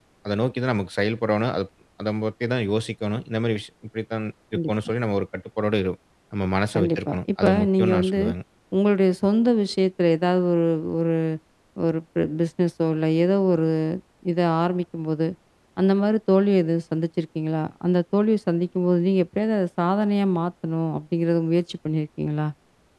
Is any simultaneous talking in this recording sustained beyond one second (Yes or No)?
Yes